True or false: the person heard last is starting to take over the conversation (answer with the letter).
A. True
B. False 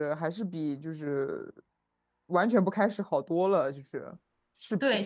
A